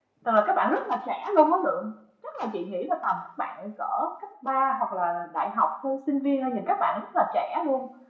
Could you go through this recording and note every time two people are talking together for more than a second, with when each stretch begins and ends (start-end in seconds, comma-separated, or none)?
none